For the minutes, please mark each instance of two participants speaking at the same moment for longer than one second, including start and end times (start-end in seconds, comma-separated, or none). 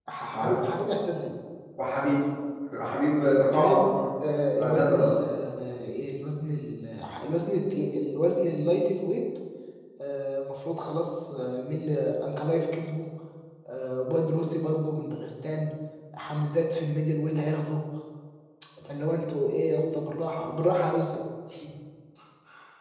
none